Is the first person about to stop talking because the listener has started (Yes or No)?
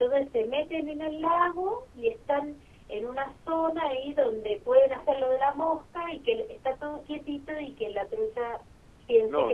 Yes